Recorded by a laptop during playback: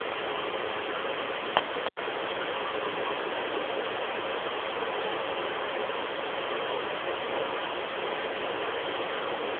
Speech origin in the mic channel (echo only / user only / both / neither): neither